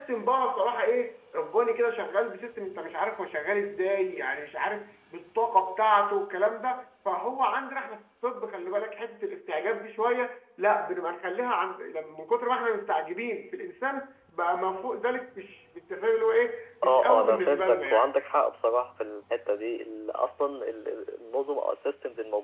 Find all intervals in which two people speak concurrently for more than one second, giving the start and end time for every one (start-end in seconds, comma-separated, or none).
16.8-18.1